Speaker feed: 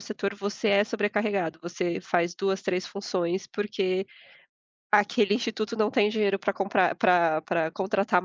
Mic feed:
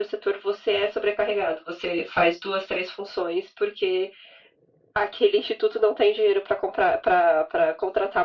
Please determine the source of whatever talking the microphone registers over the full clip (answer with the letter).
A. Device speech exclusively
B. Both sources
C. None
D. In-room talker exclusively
A